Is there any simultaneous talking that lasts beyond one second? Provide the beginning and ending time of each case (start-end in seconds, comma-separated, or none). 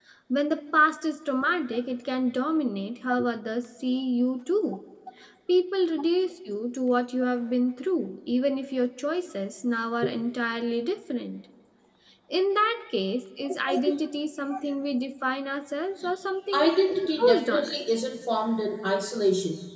16.5-17.8